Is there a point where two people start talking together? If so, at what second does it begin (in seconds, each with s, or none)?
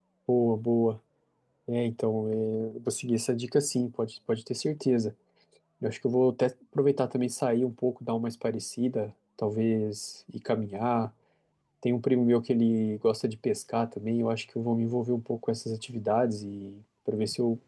none